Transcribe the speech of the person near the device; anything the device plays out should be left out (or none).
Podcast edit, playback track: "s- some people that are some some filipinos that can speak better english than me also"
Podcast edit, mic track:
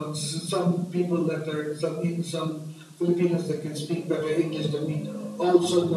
none